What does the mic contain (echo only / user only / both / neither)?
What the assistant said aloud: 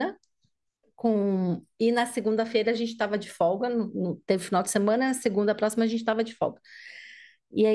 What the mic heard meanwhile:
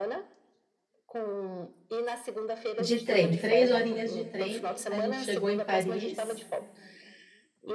both